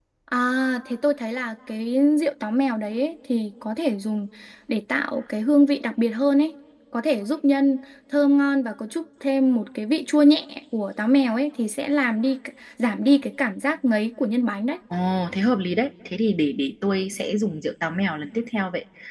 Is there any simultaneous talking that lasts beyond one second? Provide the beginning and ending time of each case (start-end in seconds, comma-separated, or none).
none